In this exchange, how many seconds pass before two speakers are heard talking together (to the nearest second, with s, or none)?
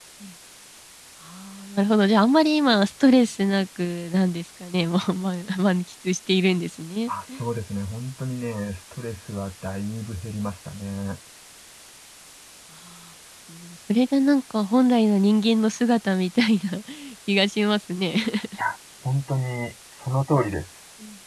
none